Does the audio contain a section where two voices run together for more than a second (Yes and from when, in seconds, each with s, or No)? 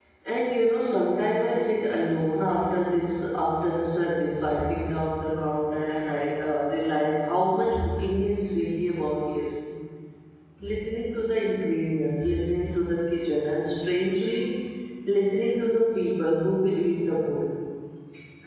No